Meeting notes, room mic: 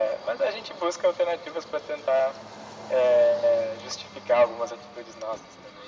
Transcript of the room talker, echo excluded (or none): none